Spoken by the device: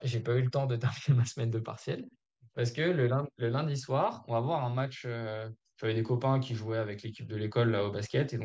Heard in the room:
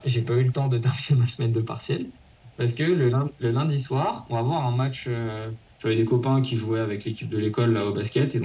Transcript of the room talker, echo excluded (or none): none